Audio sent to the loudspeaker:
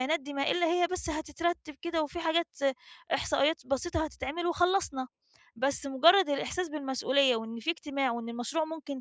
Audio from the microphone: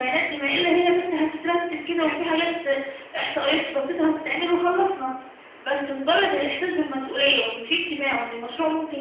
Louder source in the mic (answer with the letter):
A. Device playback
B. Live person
A